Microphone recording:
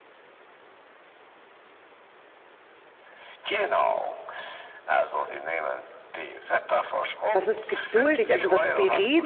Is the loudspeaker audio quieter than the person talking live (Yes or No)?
Yes